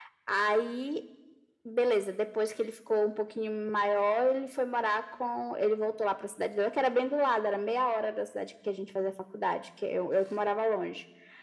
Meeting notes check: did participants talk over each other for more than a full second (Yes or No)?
No